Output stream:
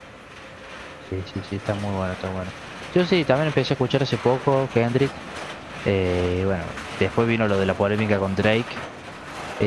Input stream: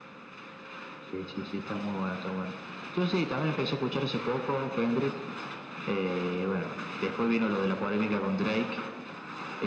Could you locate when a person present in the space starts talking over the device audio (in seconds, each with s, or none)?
none